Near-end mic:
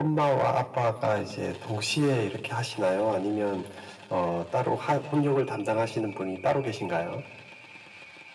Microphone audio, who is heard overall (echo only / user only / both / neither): echo only